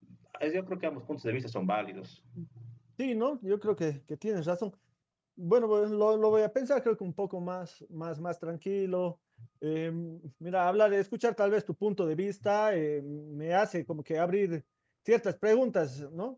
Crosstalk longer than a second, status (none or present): none